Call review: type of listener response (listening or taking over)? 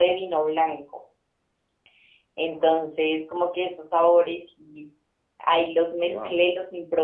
listening